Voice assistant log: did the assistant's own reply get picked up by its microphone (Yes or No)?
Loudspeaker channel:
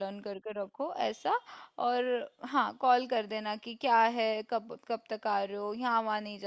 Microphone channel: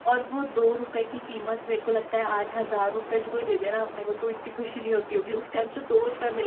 No